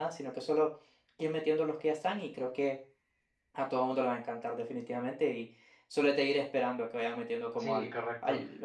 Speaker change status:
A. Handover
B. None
A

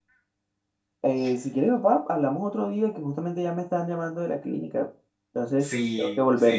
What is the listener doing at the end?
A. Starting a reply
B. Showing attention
A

